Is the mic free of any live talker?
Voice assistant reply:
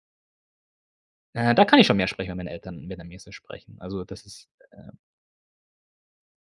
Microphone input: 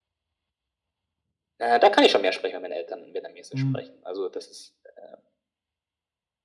No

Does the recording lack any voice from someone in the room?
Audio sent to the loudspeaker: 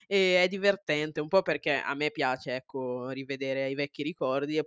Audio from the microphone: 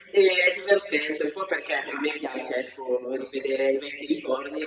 Yes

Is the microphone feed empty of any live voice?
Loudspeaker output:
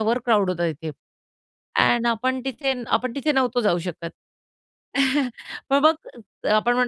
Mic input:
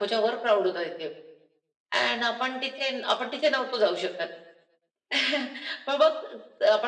Yes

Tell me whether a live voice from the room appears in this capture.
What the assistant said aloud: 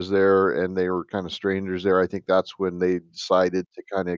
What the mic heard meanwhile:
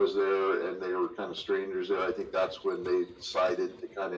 No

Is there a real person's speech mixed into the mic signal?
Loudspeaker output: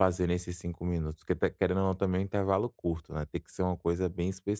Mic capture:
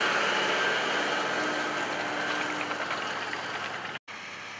No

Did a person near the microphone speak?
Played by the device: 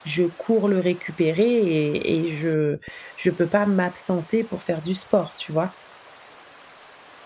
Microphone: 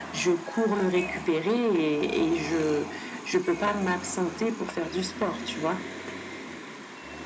No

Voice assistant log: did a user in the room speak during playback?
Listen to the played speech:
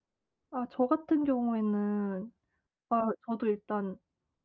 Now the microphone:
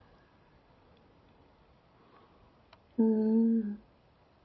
Yes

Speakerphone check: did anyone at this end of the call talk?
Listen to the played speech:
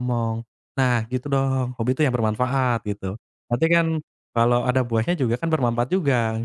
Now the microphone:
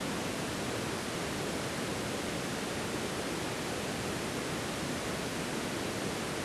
No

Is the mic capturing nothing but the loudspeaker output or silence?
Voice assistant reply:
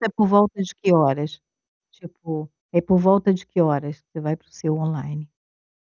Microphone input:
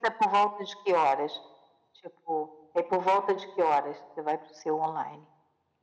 Yes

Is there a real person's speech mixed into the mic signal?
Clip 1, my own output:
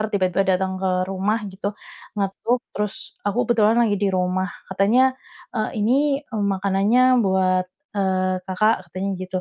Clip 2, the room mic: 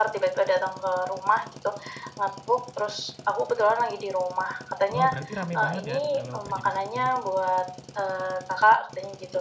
Yes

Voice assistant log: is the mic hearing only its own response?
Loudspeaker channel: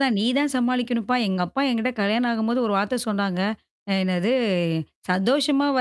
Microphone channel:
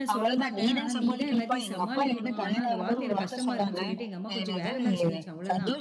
No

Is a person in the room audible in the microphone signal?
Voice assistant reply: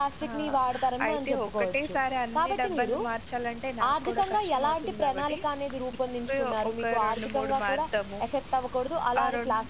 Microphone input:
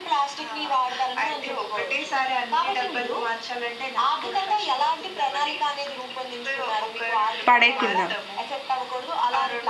Yes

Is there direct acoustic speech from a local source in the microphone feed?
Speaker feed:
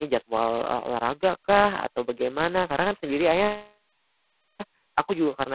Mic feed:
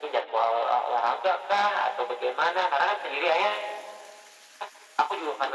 No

